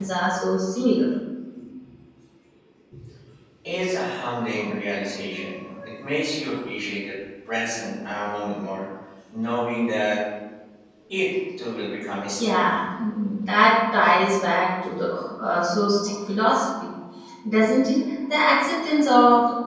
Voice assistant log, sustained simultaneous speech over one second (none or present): none